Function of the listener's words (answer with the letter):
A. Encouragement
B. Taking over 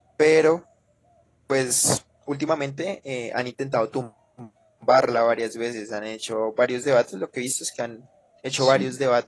A